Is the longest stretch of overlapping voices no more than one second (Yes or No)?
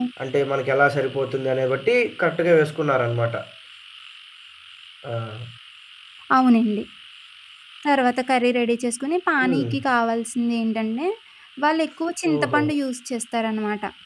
Yes